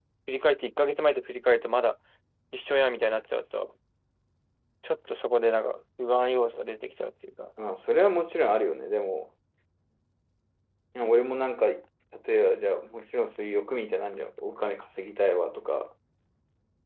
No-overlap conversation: Yes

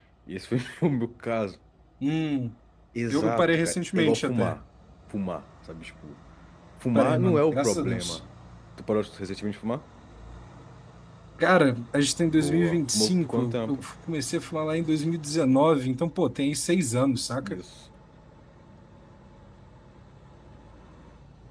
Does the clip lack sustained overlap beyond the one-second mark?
No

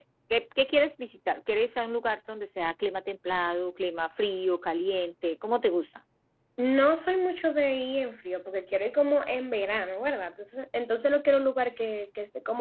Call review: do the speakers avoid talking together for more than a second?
Yes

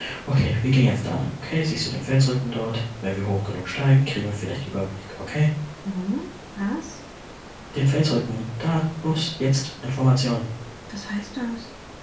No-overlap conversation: Yes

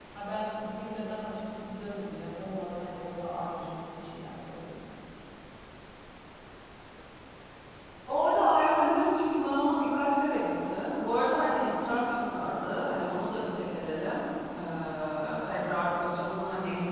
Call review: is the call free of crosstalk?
Yes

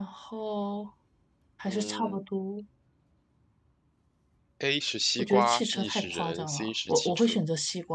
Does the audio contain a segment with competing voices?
Yes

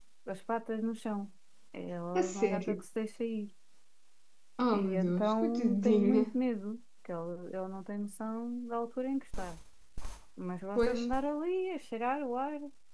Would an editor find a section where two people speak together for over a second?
Yes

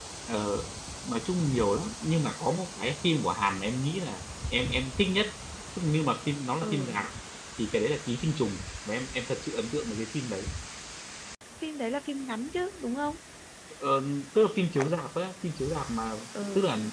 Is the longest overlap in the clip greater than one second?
No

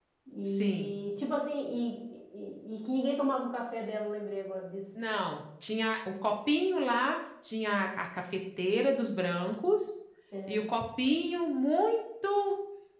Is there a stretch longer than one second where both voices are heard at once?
No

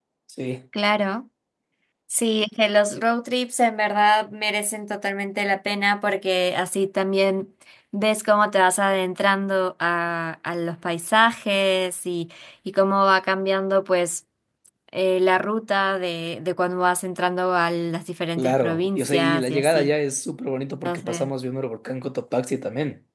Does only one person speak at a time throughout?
No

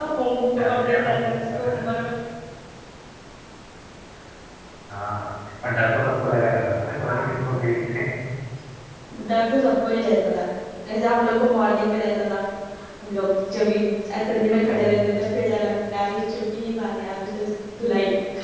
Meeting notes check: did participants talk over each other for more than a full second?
Yes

